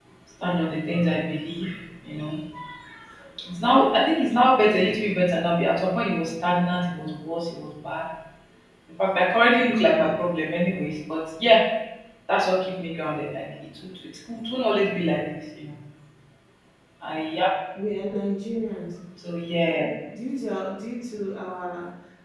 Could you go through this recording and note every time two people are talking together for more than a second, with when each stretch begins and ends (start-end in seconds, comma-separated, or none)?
none